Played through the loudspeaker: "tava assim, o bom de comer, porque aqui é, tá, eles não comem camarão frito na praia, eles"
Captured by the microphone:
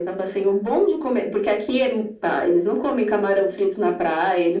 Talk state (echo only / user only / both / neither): echo only